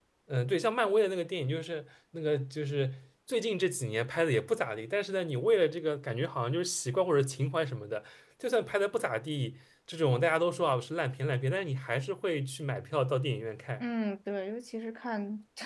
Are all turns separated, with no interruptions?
Yes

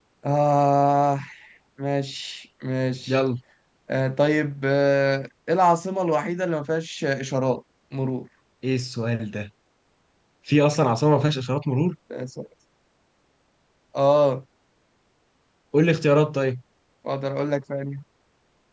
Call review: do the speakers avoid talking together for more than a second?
Yes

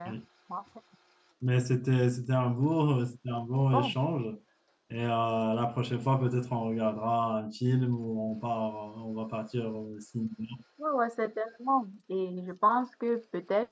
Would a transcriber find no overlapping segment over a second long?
Yes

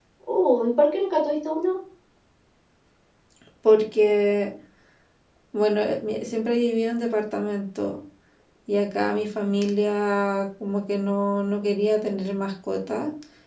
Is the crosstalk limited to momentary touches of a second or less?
Yes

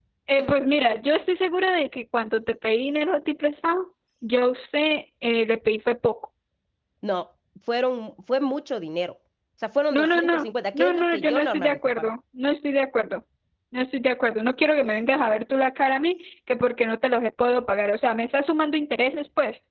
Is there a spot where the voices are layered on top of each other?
Yes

